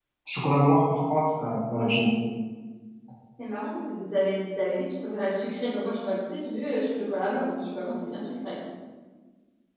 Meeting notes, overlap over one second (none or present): none